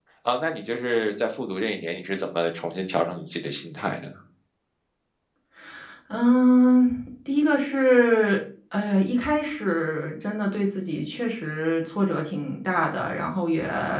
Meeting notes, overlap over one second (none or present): none